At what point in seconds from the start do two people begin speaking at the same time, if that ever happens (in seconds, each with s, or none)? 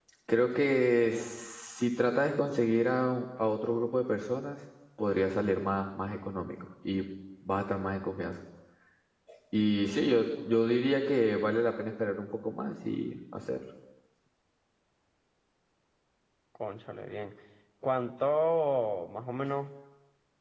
none